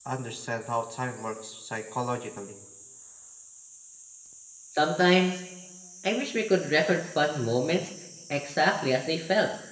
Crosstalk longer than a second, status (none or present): none